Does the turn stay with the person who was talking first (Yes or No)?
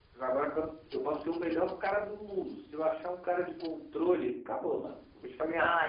No